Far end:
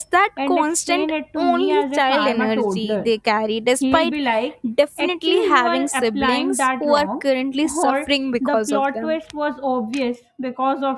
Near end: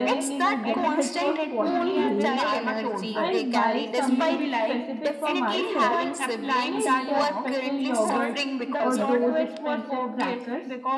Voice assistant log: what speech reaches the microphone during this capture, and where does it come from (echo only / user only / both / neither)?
both